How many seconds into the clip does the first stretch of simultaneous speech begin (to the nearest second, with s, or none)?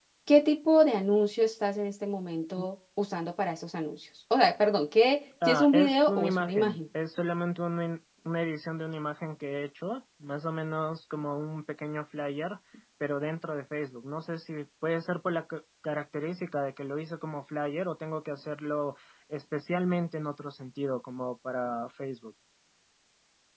5 s